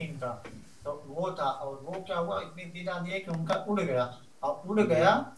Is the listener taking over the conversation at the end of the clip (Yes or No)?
No